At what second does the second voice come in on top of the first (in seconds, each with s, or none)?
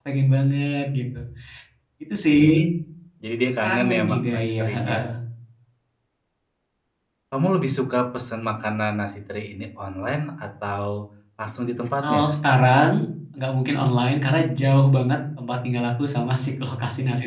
3.6 s